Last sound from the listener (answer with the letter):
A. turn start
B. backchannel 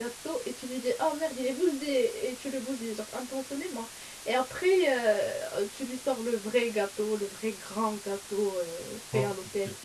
A